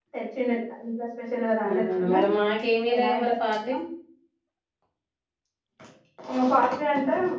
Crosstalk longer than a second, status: none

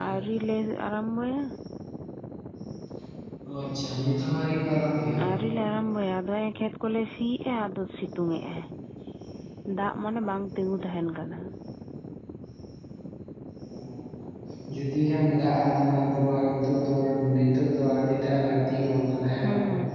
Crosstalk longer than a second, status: none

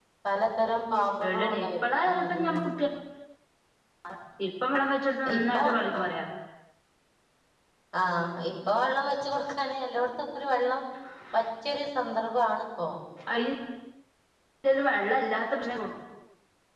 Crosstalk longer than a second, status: present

